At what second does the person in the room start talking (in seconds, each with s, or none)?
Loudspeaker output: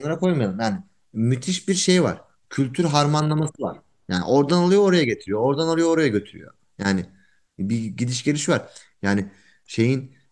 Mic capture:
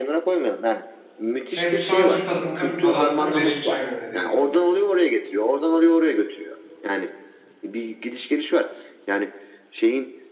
1.5 s